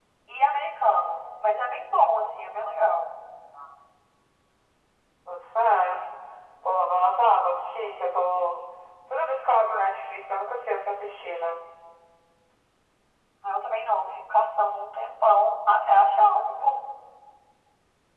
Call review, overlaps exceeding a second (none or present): none